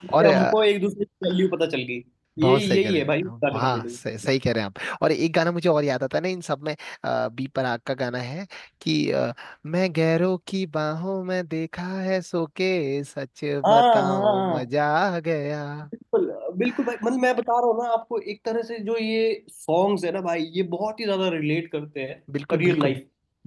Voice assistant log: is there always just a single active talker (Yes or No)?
No